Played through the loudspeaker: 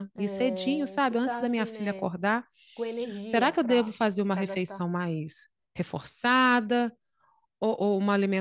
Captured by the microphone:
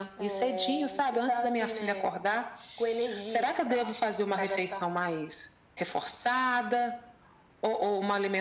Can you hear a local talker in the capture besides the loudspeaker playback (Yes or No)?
No